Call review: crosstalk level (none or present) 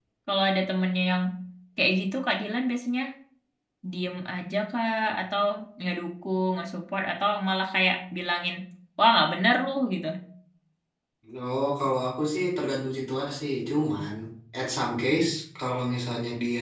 none